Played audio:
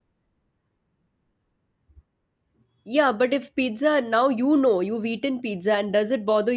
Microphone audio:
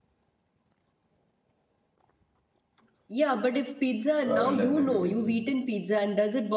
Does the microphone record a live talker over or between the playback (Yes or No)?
Yes